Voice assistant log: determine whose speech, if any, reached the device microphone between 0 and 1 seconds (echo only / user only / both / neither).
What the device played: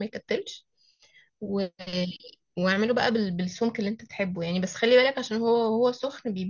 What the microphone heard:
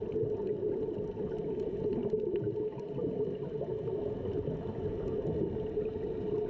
neither